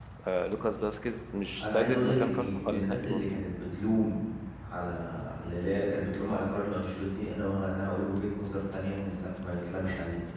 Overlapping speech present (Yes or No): Yes